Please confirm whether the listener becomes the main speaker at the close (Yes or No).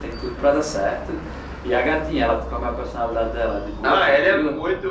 Yes